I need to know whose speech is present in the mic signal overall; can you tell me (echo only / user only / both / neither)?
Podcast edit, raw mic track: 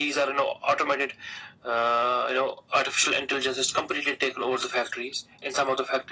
echo only